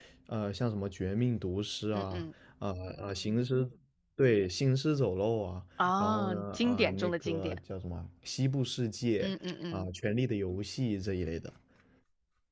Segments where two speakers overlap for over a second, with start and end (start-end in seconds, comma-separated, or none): 6.0-7.6